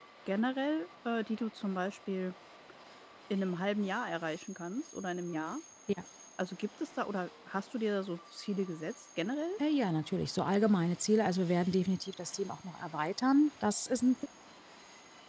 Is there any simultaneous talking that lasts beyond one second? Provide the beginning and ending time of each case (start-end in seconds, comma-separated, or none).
none